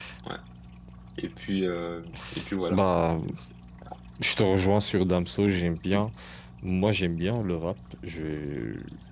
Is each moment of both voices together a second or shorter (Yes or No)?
Yes